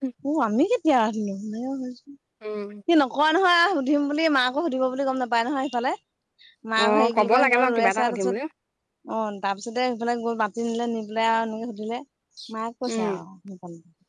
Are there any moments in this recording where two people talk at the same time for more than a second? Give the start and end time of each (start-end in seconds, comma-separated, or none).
6.8-8.3